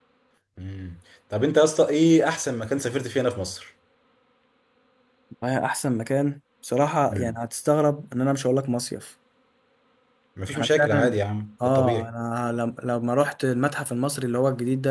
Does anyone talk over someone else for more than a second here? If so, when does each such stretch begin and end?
none

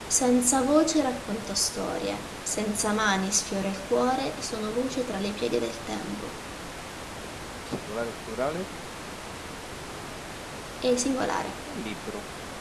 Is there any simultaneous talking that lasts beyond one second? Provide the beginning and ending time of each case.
none

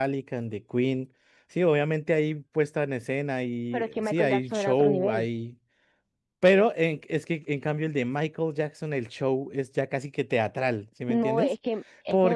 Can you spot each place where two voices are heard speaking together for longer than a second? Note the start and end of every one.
3.7-5.2

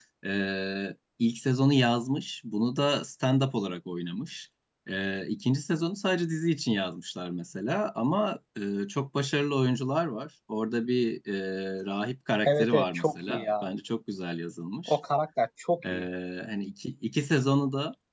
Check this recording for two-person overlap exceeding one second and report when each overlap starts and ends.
12.5-13.7

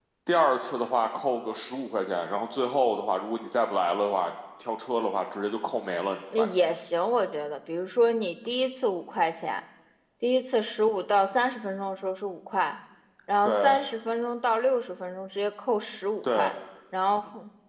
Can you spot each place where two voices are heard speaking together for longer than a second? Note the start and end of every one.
none

